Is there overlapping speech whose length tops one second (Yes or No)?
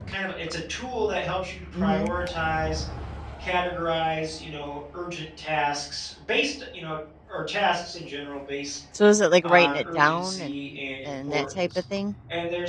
Yes